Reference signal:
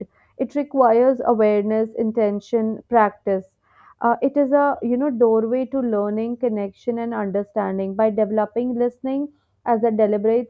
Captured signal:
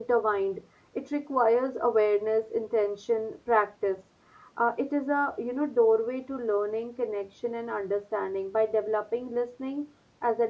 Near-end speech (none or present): none